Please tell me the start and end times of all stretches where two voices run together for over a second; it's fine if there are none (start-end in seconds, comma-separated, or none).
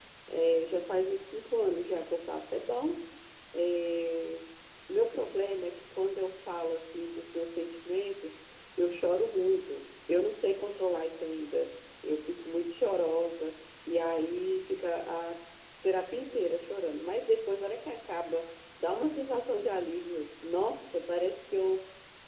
none